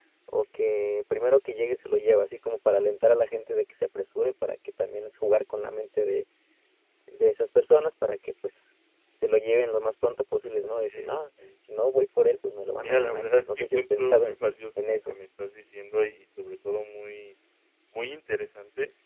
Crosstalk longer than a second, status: present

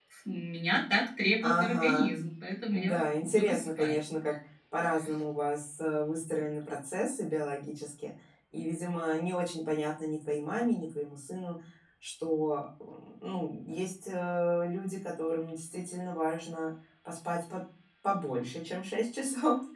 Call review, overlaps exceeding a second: present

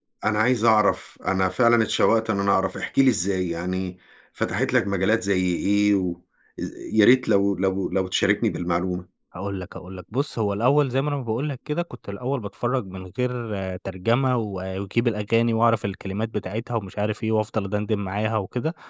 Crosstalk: none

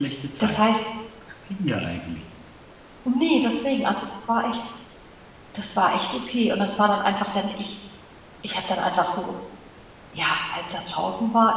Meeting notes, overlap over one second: none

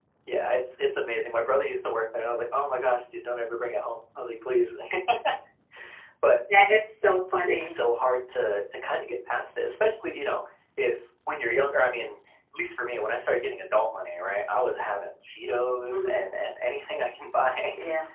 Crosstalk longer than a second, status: none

